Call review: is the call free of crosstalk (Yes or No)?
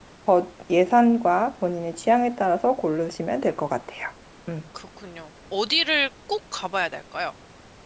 Yes